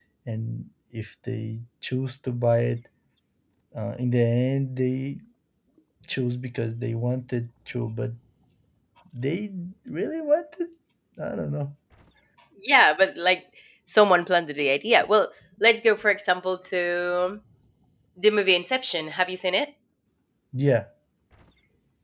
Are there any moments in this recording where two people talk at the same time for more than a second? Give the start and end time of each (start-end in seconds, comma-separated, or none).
none